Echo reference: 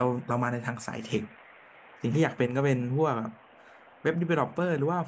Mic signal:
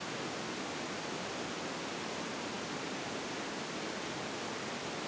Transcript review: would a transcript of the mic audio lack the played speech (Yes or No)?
Yes